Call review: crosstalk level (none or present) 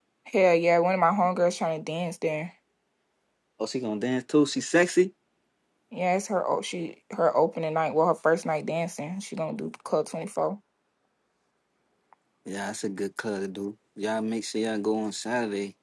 none